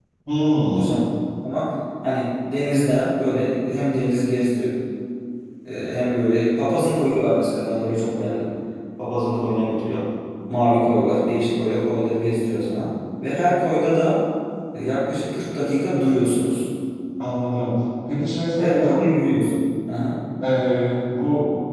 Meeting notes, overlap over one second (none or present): none